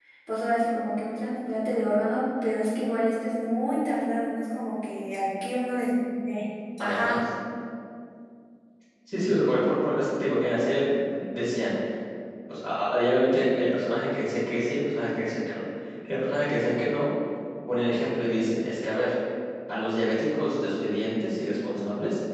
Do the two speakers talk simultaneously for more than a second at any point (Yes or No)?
No